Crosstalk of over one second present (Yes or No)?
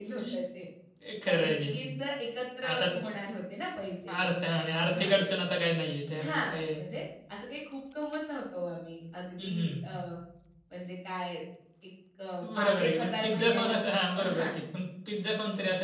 Yes